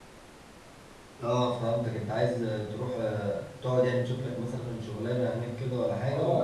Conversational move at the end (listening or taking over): taking over